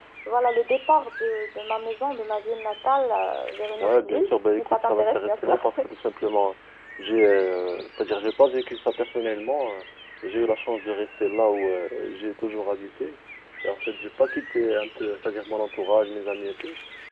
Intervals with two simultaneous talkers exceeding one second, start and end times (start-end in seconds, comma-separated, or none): 3.7-5.6